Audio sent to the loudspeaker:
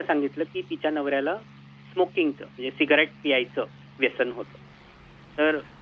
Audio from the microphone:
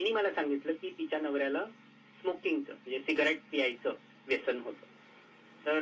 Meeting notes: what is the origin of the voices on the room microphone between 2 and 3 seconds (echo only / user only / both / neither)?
echo only